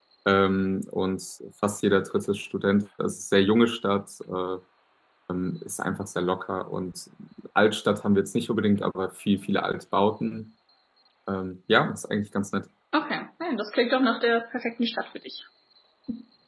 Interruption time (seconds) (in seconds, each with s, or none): none